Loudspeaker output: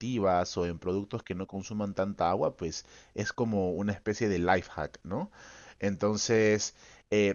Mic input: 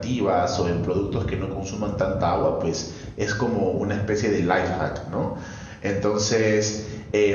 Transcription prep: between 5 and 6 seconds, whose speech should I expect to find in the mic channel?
echo only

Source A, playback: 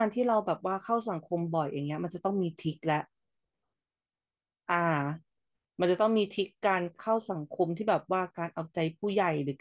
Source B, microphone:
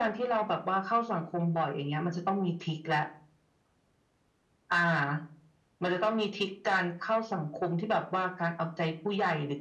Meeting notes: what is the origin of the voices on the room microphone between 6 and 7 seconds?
echo only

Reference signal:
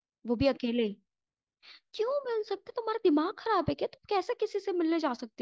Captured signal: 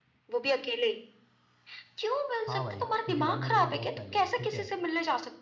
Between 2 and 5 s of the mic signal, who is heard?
both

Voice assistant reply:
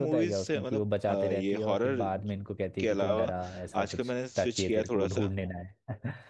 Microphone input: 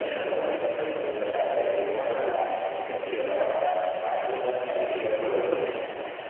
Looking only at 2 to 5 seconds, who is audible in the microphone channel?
echo only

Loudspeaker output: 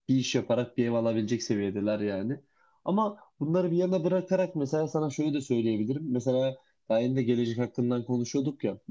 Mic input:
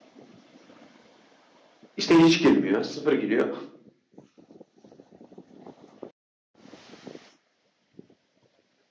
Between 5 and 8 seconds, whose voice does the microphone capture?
neither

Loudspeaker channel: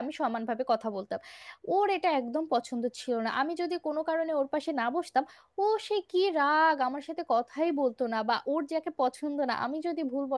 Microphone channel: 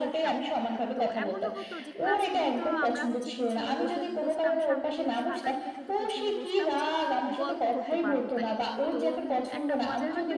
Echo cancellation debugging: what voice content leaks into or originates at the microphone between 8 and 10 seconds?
both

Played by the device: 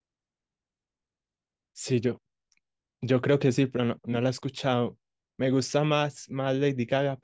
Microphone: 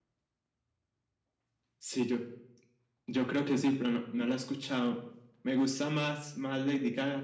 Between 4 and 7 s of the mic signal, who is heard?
echo only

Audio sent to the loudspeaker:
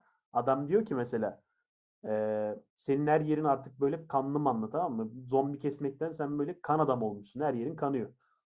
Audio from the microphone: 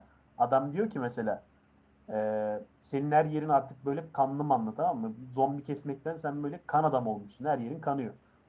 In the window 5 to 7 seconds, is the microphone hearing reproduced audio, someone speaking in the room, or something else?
echo only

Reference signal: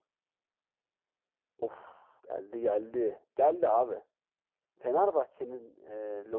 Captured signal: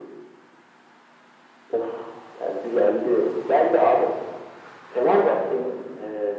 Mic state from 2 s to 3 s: echo only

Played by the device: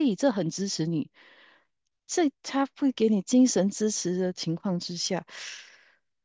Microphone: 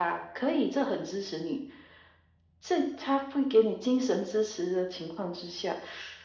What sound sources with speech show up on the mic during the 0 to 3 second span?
echo only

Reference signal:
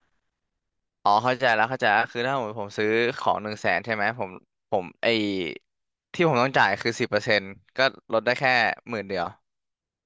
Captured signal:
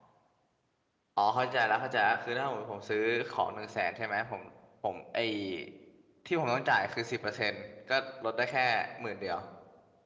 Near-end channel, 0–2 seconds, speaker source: echo only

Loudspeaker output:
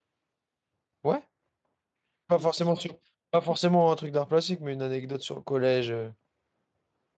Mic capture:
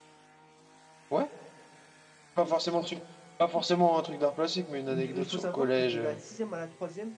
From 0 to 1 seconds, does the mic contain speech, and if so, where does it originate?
neither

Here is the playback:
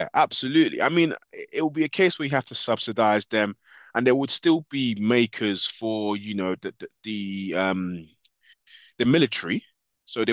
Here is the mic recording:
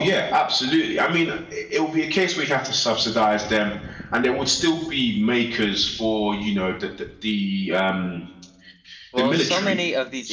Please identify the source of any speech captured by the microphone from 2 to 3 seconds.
echo only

